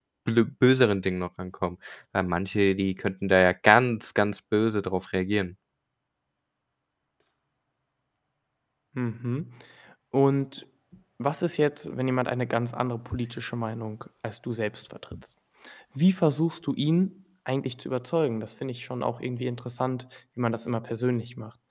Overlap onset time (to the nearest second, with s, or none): none